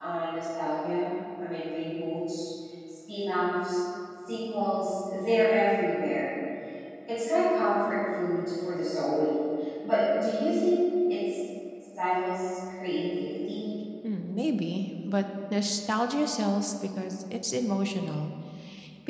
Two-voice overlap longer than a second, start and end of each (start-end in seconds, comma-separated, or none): none